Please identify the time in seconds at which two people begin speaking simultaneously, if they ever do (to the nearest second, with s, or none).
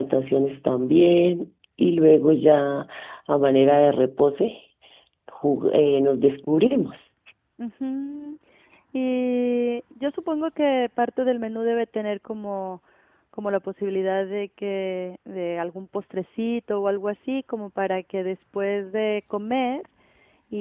none